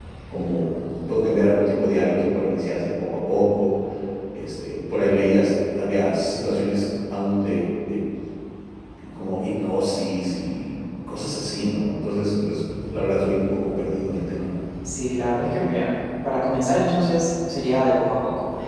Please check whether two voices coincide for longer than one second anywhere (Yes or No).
No